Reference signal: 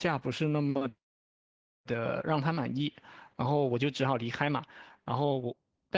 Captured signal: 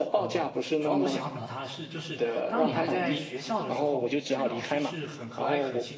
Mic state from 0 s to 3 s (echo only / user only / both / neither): both